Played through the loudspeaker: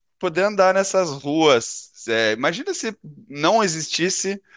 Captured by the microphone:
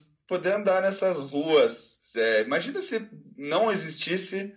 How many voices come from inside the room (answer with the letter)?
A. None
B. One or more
A